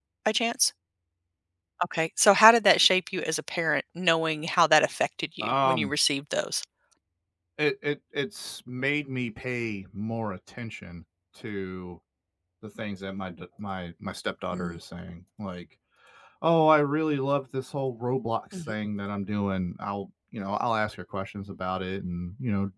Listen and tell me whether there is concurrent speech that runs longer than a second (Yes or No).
No